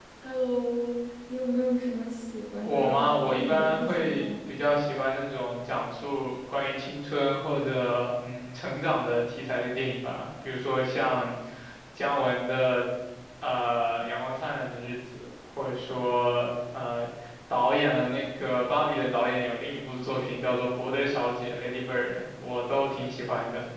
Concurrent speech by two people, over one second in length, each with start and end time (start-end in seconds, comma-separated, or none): 2.6-4.2